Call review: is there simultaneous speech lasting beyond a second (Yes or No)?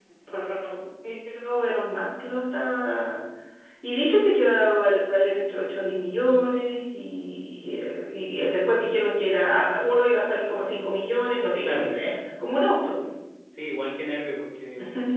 No